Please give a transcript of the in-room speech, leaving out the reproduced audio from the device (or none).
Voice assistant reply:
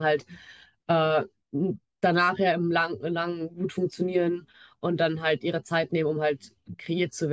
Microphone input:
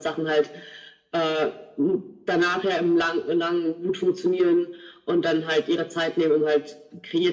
none